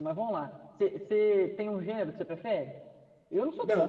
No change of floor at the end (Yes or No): No